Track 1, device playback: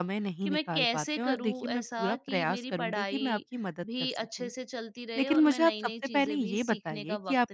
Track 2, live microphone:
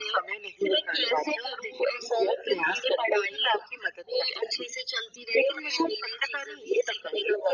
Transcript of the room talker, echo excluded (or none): none